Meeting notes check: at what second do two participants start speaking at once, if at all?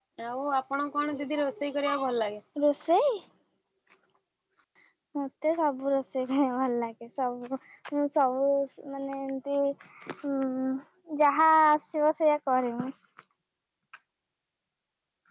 none

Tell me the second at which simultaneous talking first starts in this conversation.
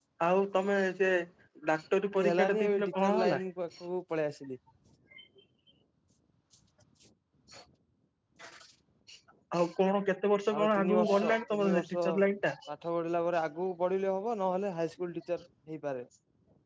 2.2 s

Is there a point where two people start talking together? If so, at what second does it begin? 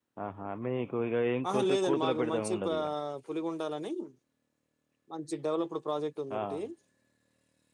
1.5 s

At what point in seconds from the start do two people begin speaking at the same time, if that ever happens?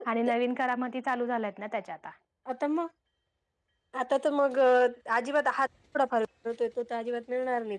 none

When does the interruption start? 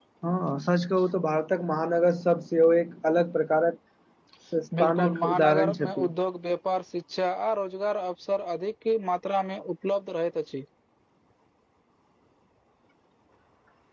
4.8 s

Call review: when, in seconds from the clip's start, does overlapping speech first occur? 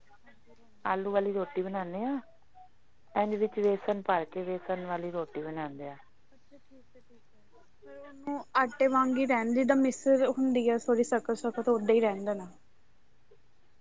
none

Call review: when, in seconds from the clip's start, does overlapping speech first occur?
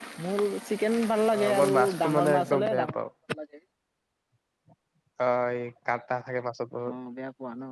1.3 s

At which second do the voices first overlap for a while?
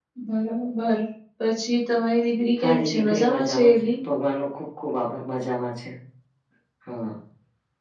2.6 s

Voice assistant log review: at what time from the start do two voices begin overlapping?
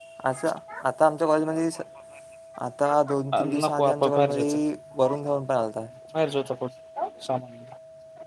3.3 s

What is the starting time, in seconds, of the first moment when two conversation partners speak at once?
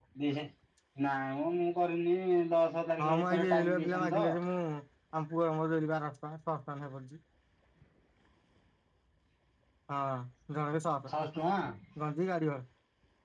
3.0 s

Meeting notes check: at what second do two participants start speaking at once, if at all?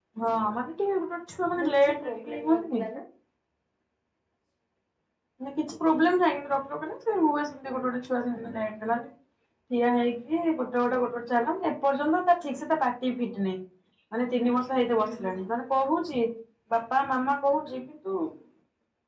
1.6 s

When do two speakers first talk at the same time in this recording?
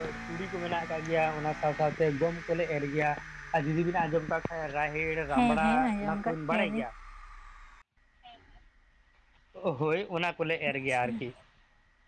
5.3 s

